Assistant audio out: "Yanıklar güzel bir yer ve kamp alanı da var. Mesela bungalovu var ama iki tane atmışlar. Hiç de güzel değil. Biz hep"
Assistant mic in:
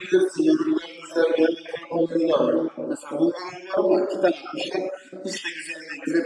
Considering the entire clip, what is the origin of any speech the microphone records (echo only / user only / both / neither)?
echo only